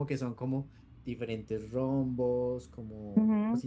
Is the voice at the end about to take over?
Yes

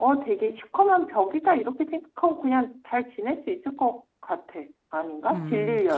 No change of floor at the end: No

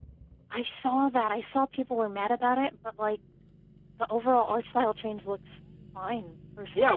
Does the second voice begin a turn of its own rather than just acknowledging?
Yes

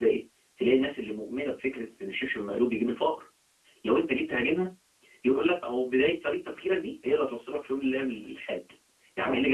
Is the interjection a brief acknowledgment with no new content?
Yes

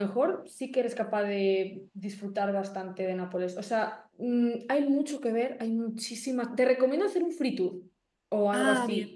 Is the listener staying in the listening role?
Yes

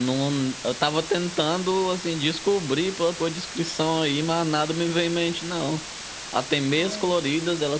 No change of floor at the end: Yes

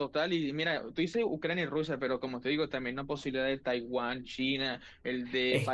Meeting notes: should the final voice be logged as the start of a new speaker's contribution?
Yes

